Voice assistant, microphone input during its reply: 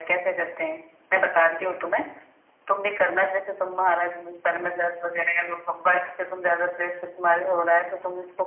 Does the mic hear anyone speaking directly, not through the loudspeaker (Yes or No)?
Yes